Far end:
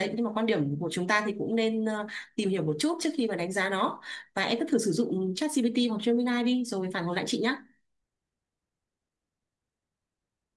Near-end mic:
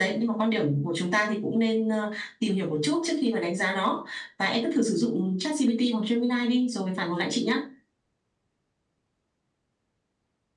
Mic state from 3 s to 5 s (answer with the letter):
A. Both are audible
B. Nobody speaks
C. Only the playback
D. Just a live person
C